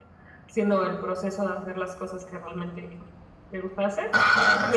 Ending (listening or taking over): taking over